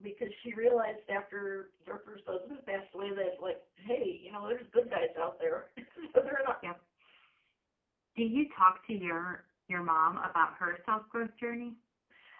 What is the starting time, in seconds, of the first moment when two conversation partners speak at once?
none

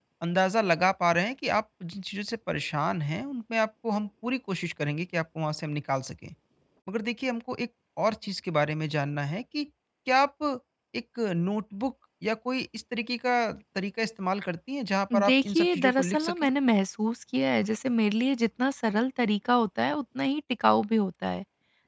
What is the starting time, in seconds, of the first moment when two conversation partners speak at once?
15.1 s

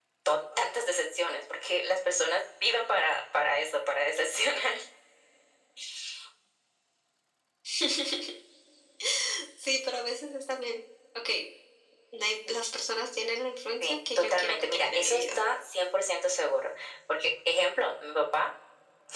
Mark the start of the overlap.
13.8 s

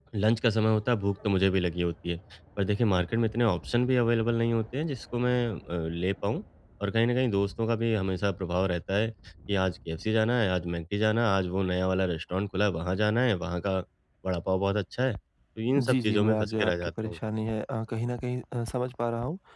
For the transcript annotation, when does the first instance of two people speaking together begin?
15.8 s

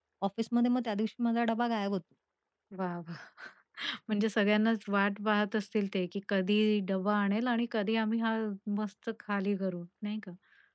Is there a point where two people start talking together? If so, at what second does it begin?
none

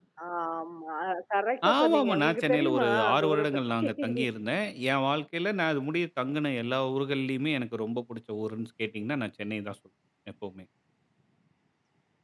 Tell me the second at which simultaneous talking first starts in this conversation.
1.6 s

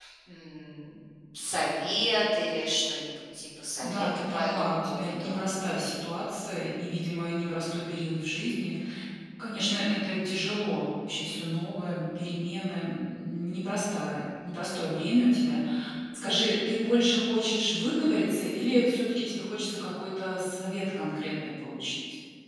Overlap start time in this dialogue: 3.8 s

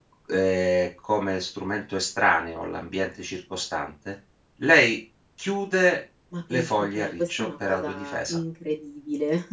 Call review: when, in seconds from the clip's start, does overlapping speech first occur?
6.3 s

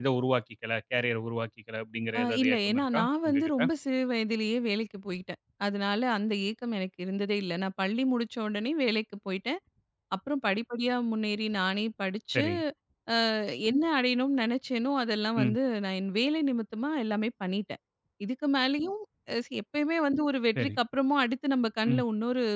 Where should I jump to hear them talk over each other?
2.1 s

